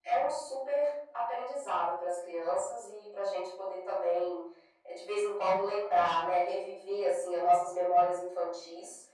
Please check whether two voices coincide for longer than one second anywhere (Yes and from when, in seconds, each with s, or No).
No